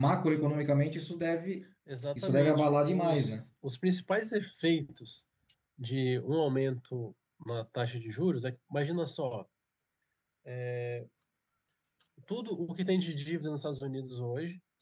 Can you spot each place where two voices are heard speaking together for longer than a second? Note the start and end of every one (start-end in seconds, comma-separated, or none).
2.2-3.4